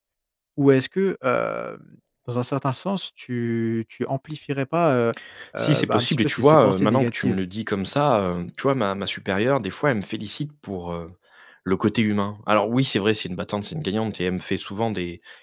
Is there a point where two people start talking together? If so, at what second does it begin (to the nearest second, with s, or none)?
6 s